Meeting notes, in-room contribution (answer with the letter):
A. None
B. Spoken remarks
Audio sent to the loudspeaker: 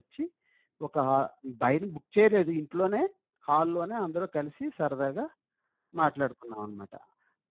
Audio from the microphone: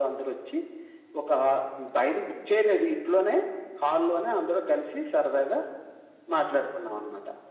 A